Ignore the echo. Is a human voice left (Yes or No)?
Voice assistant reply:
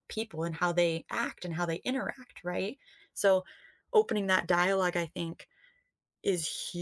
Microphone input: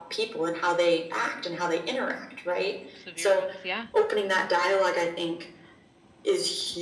Yes